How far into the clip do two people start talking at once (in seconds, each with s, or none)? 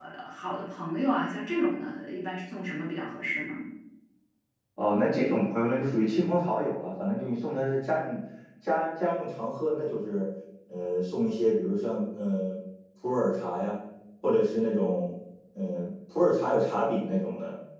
none